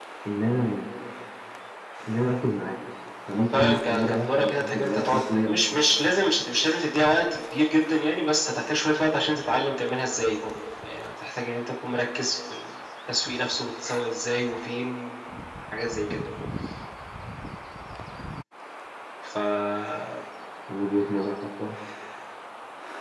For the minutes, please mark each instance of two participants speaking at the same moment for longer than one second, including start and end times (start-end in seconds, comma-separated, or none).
3.5-5.6